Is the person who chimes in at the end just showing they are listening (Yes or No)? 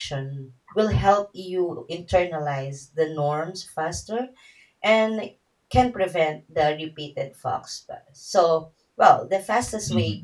Yes